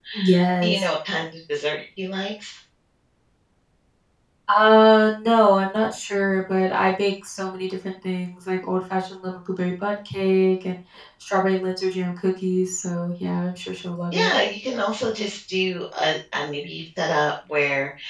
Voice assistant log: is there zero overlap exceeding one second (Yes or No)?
Yes